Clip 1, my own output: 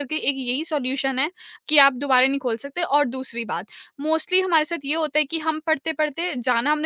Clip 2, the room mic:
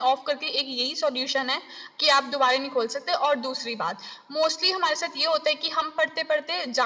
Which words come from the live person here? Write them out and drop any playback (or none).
none